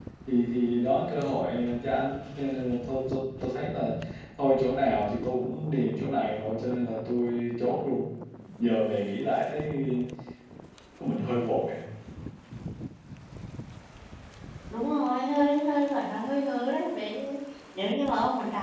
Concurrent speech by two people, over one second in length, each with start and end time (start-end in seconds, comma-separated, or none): none